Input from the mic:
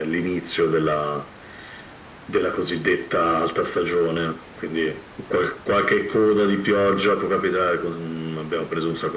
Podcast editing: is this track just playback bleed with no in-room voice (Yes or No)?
Yes